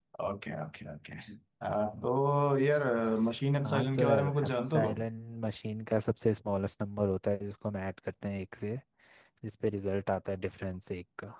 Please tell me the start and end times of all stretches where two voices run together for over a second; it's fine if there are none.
3.6-5.0

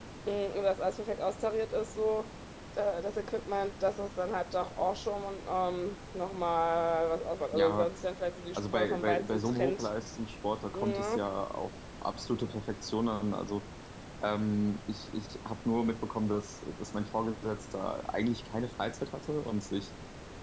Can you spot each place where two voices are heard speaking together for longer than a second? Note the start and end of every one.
8.5-9.9

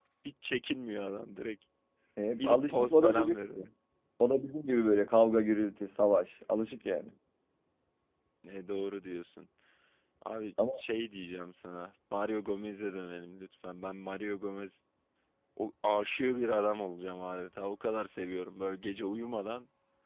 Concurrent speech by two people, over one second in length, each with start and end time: 2.4-3.7

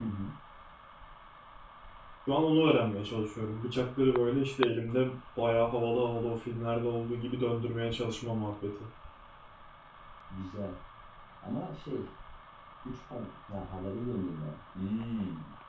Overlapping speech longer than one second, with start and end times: none

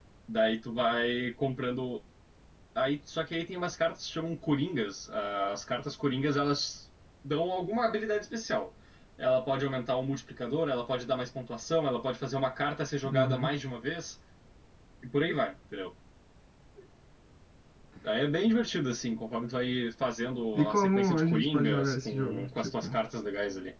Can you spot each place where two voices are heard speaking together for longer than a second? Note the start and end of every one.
20.5-23.0

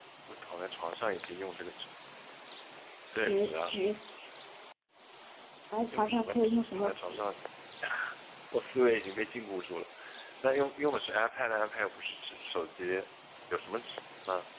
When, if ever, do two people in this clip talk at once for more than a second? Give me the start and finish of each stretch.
5.9-7.2

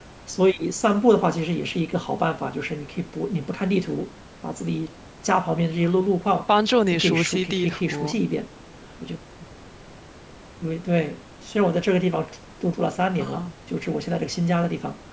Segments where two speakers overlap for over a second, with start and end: 6.9-8.2

